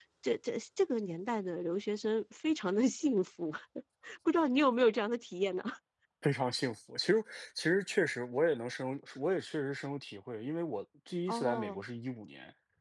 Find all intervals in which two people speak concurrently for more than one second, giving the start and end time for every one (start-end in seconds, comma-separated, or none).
none